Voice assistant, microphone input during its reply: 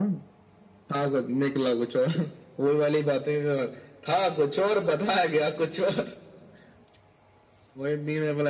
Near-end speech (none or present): none